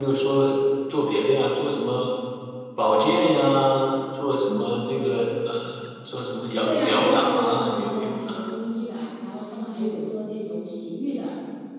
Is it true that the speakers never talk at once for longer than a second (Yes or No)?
No